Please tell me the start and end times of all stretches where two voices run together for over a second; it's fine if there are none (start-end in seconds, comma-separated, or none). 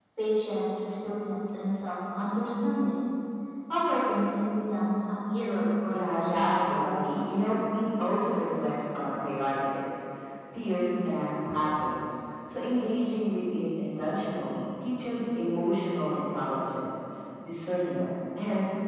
5.8-7.4